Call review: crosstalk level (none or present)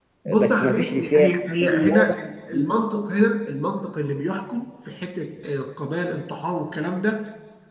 present